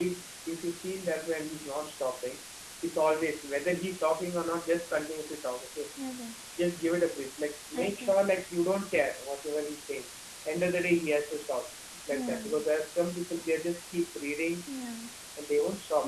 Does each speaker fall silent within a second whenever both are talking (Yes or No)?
Yes